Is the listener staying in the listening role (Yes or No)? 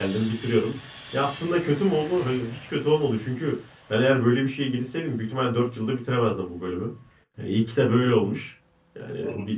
Yes